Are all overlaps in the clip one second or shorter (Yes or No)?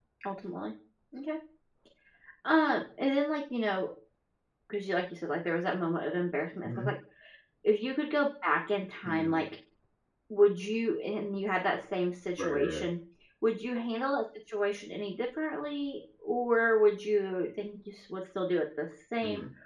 Yes